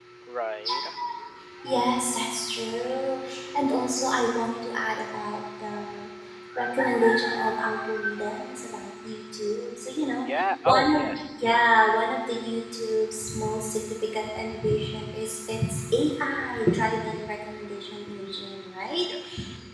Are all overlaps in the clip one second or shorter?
Yes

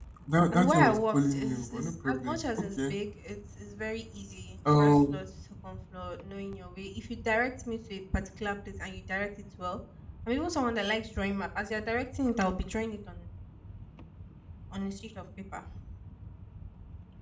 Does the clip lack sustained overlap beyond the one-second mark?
No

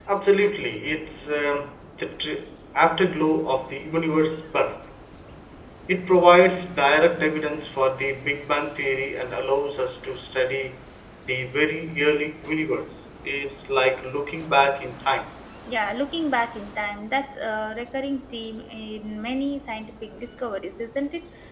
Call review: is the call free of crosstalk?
Yes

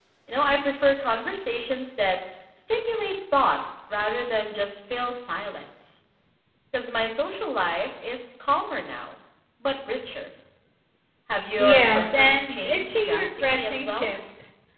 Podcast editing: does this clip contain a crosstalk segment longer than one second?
Yes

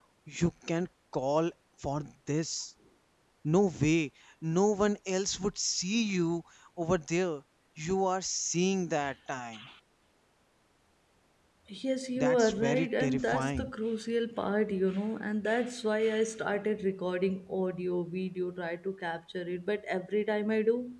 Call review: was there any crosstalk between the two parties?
Yes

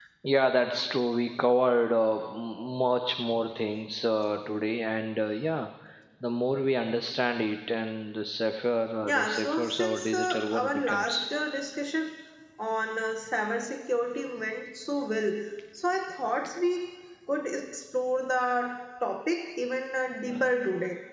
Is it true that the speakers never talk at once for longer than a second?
No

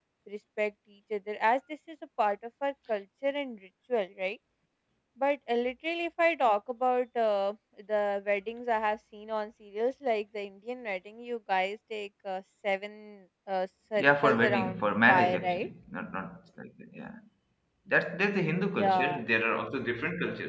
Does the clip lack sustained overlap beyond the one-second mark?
No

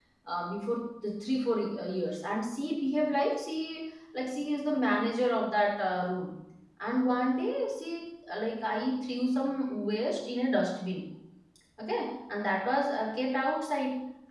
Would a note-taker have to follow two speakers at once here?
No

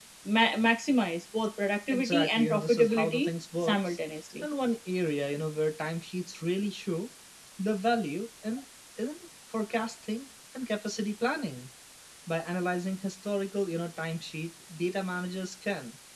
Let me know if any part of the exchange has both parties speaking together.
Yes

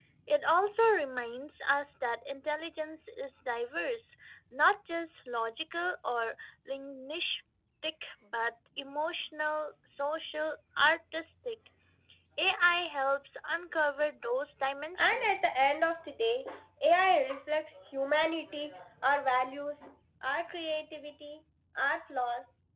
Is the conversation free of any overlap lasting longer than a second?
Yes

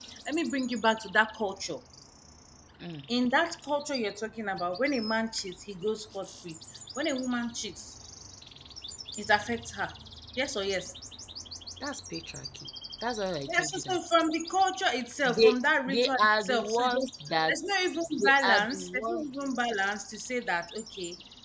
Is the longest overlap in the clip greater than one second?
Yes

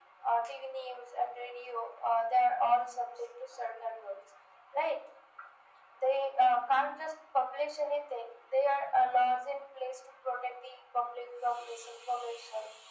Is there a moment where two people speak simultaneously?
No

